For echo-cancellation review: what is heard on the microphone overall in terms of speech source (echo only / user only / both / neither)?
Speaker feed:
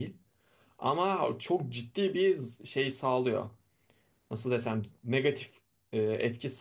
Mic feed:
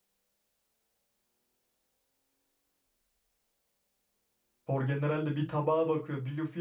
user only